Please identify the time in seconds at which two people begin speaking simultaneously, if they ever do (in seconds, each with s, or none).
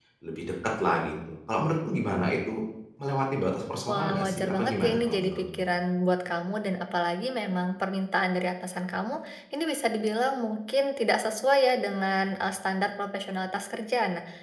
3.9 s